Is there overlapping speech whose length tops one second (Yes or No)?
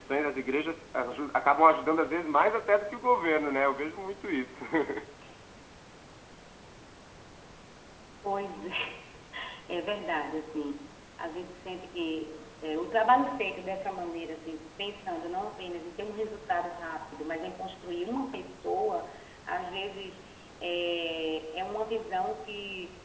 No